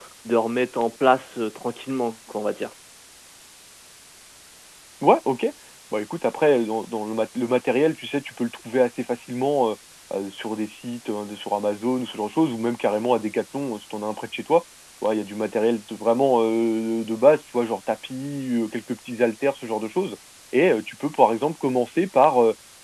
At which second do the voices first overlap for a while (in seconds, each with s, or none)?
none